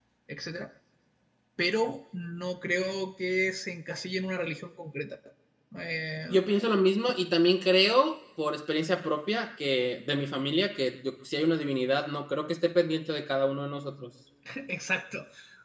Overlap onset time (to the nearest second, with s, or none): none